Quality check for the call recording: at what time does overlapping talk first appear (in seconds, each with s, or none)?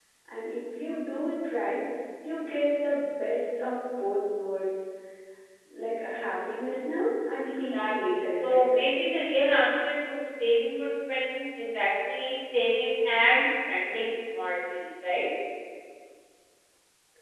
7.4 s